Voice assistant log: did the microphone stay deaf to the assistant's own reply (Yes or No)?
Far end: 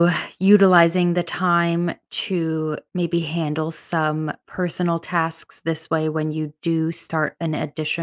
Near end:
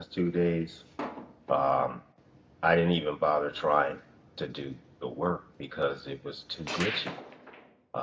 Yes